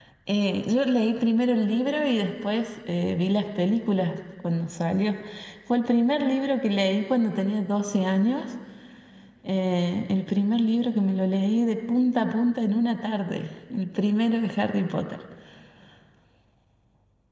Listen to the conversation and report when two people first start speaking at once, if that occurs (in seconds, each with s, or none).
none